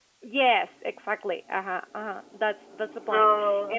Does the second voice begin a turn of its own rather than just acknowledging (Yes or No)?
No